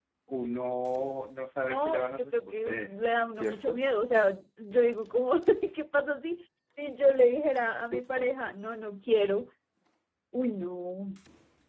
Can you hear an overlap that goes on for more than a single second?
Yes, from 1.6 s

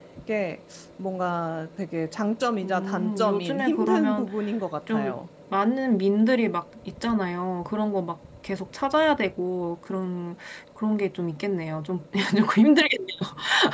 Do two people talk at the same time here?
Yes, from 2.6 s

